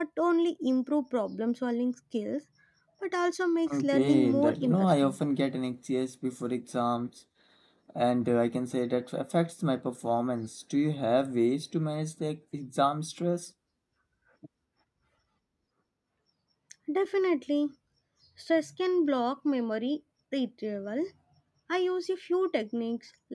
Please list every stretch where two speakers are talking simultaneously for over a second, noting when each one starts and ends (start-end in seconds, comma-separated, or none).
3.7-5.2